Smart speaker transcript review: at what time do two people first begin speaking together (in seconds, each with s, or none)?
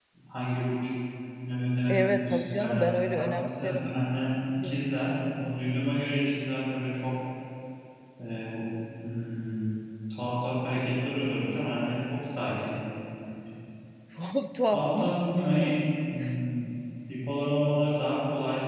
1.9 s